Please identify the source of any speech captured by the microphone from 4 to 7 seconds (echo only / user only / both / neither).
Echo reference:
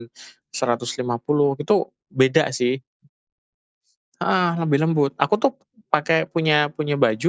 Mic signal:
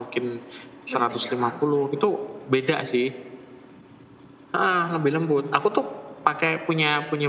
echo only